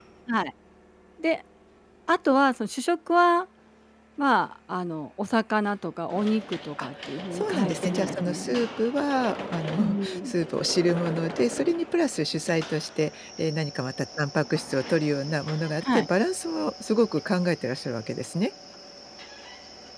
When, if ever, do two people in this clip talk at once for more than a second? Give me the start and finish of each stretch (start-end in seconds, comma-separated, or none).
7.3-8.6